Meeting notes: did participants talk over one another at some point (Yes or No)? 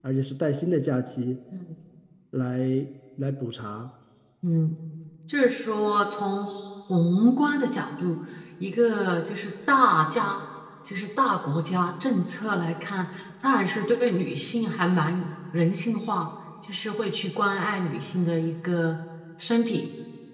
No